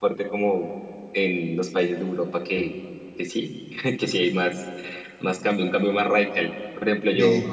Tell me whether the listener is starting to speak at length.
No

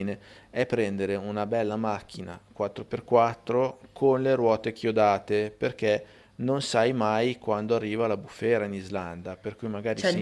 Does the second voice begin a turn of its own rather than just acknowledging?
Yes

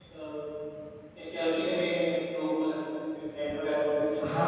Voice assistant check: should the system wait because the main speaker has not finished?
No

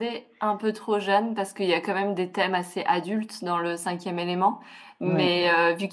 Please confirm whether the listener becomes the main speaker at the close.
No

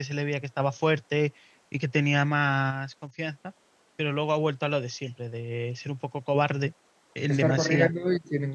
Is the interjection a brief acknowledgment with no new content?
No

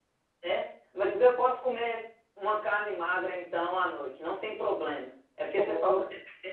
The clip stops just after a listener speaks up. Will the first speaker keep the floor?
Yes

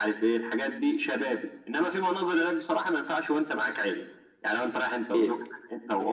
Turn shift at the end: No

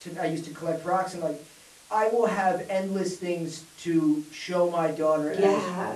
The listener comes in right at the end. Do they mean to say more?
No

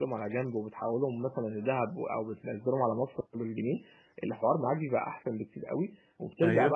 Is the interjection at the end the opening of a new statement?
No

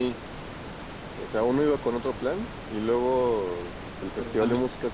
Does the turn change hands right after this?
No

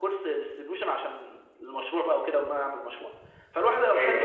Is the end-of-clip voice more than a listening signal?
No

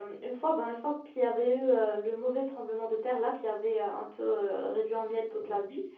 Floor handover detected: No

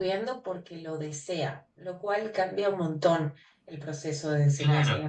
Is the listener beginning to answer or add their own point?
No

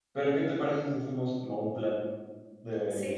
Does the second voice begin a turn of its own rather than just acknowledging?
Yes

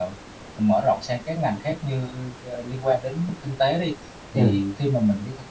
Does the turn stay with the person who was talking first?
Yes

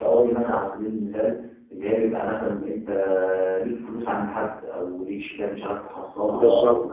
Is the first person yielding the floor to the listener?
No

